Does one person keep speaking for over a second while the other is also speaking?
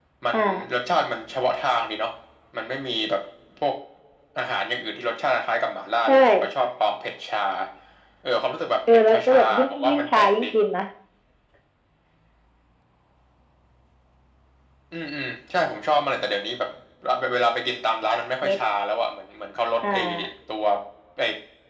Yes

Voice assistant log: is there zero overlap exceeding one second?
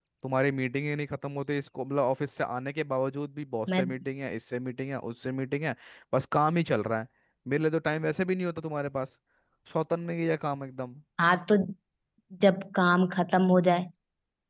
Yes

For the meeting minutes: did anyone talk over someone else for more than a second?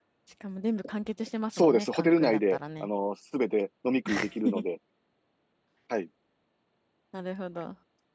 Yes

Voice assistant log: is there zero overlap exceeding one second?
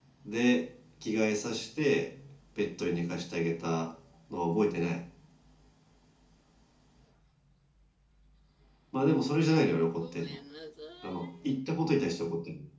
Yes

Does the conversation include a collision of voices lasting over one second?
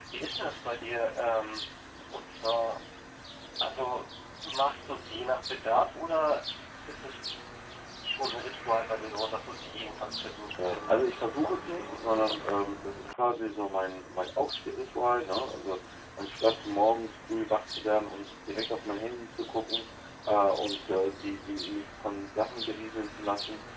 Yes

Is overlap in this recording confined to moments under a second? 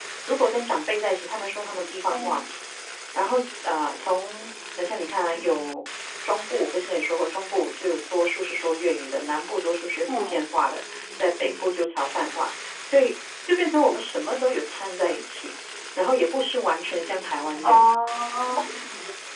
Yes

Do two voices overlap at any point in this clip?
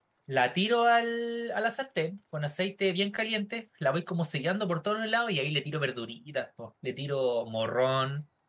No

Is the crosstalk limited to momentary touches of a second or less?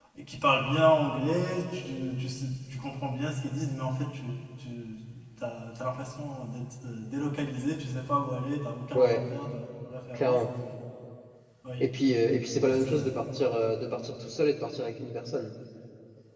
Yes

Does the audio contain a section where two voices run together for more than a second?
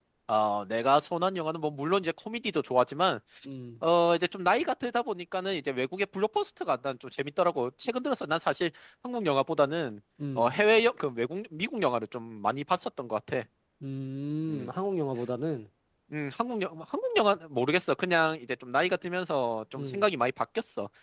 No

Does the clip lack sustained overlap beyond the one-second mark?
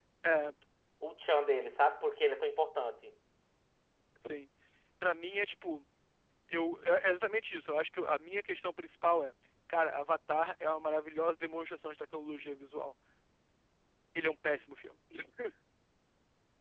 Yes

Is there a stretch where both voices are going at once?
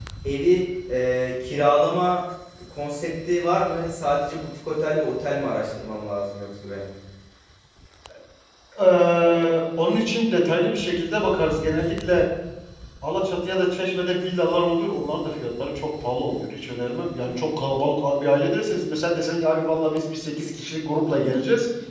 No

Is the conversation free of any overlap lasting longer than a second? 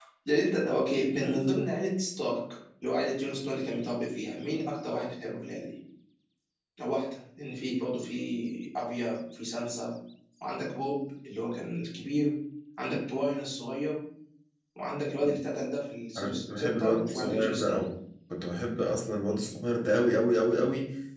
No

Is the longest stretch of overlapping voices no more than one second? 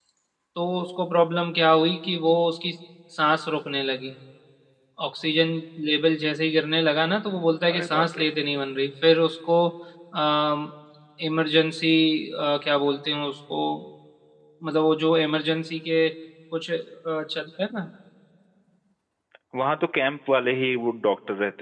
Yes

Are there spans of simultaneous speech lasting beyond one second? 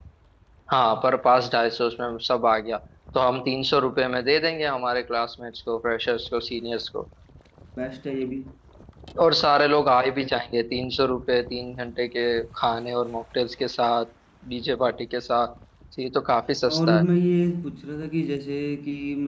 No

